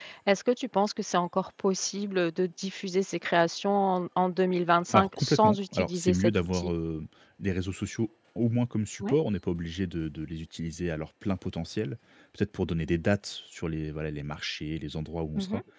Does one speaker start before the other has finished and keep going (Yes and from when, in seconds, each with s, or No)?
Yes, from 4.9 s